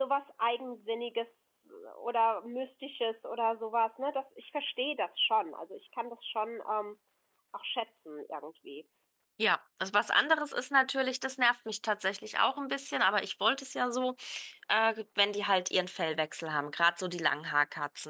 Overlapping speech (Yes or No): No